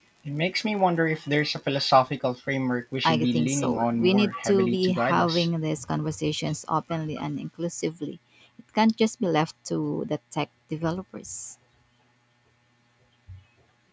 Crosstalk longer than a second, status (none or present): present